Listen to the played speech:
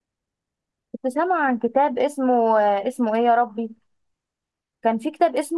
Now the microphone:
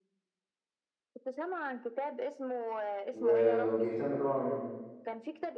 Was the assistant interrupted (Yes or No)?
Yes